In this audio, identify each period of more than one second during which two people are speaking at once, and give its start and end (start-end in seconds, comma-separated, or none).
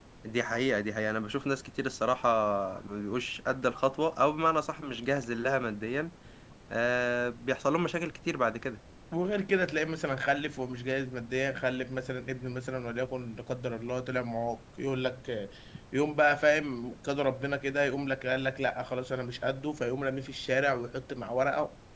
none